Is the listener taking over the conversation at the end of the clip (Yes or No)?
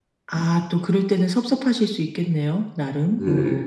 Yes